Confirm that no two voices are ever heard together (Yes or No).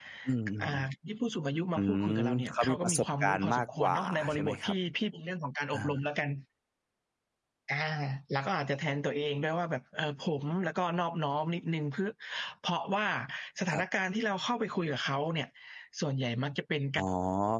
No